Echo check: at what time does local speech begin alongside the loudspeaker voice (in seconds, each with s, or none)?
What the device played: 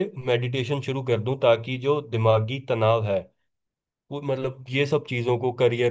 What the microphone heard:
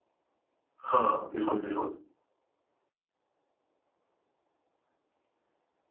0.8 s